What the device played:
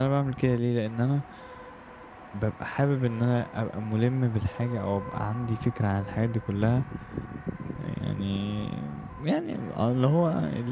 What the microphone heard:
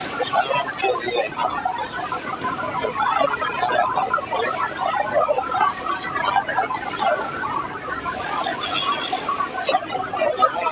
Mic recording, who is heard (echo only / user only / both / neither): echo only